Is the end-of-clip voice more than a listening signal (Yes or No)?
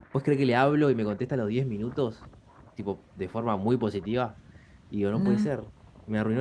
No